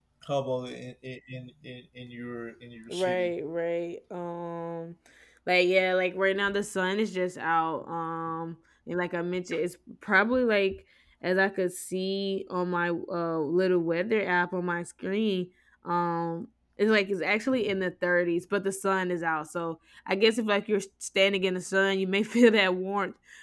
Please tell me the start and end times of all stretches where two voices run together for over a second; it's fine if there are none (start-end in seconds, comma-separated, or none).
none